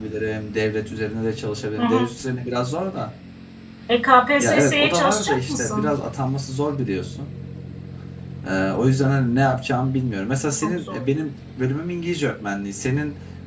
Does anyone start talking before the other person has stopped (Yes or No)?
Yes